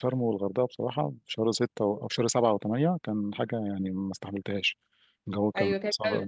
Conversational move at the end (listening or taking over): taking over